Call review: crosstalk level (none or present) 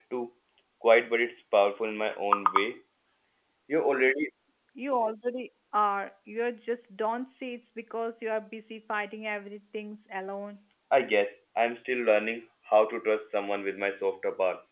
none